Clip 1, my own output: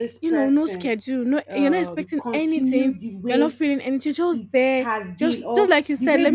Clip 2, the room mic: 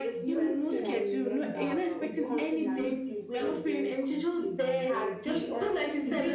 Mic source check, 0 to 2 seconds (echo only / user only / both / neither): both